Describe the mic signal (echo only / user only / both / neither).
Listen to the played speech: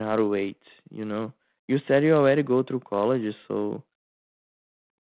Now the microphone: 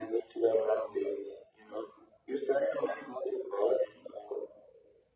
echo only